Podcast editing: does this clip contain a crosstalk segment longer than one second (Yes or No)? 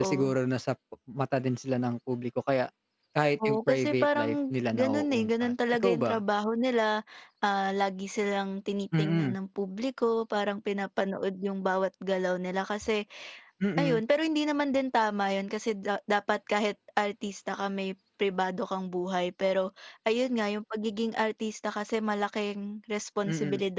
Yes